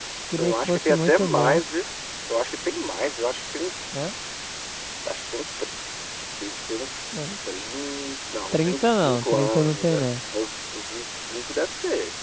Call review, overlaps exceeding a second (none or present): present